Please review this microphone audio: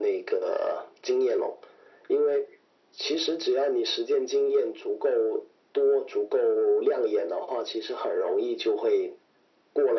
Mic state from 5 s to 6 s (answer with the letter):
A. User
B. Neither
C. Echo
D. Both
C